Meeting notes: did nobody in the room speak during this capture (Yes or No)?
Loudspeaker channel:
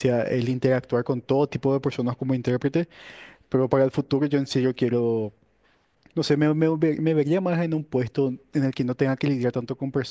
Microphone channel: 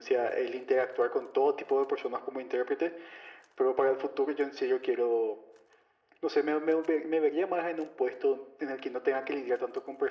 Yes